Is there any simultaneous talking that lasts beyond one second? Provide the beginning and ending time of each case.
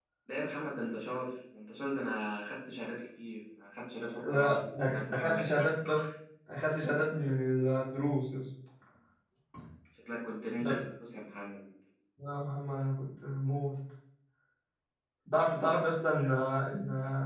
4.3-5.5

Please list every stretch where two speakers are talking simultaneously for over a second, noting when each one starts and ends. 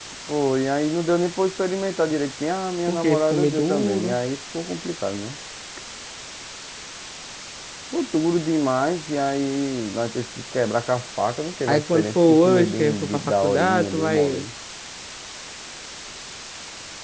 2.9-4.2, 11.7-14.4

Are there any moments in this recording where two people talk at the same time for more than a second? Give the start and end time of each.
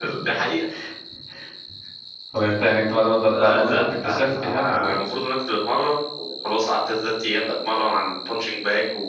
3.3-4.9

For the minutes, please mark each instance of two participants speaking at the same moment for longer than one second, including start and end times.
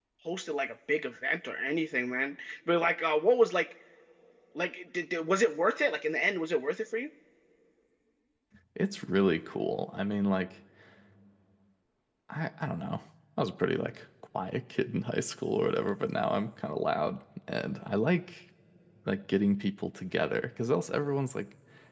none

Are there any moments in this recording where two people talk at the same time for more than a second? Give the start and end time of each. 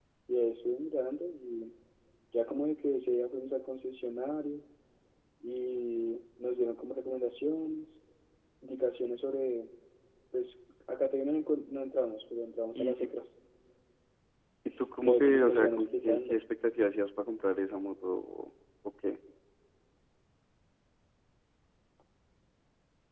15.1-16.4

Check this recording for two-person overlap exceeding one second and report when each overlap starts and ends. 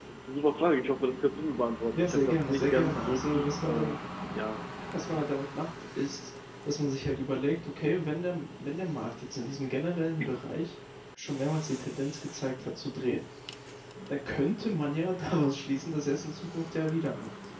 1.9-4.0

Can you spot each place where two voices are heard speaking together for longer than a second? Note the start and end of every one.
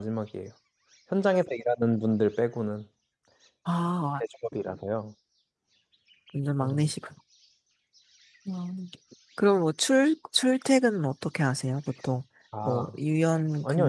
none

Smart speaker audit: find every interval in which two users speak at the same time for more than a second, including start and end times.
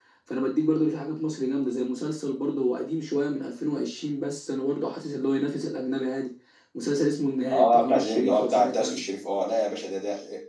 7.5-9.0

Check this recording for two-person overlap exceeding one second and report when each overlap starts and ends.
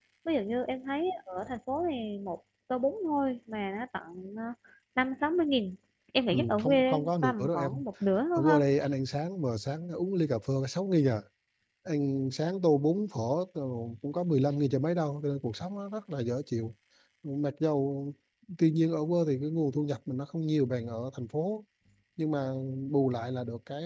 6.3-7.8

